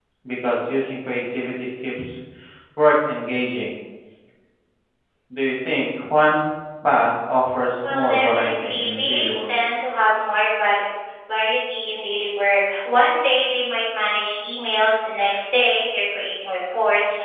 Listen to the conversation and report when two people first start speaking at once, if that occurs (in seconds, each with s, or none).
7.8 s